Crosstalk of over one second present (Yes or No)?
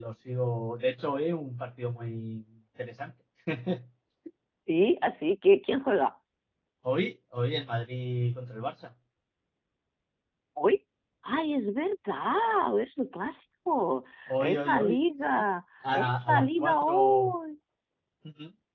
Yes